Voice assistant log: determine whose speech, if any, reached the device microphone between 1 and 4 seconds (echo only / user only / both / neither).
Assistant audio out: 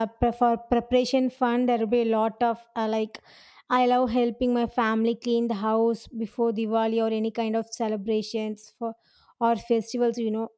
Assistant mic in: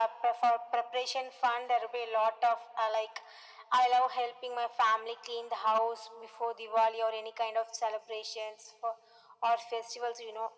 echo only